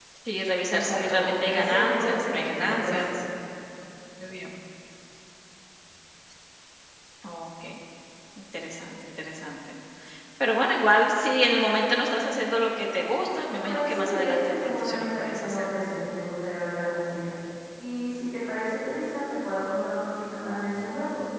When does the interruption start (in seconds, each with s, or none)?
0.7 s